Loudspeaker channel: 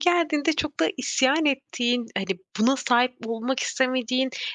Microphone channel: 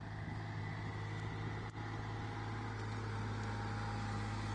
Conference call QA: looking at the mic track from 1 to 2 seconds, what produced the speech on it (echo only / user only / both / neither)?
neither